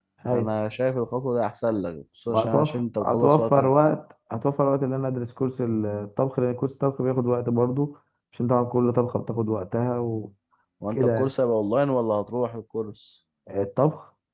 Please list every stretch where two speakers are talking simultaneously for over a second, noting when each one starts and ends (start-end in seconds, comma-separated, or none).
2.3-3.7